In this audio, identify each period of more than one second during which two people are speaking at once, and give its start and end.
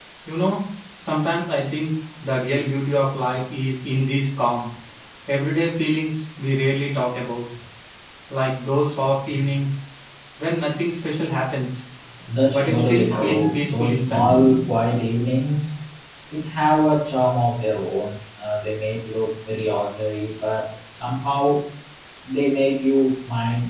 12.5-14.3

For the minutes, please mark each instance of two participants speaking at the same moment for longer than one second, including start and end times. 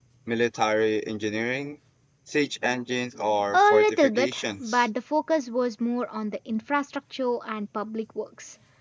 3.5-4.9

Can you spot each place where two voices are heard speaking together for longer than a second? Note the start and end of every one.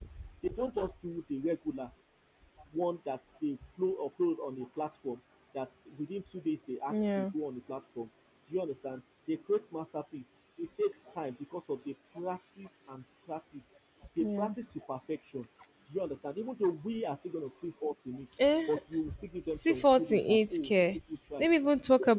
19.6-21.0

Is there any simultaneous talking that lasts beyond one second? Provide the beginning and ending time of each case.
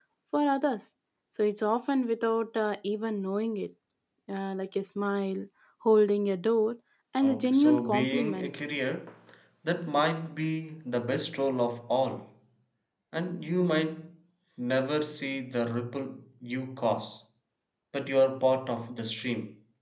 7.2-8.5

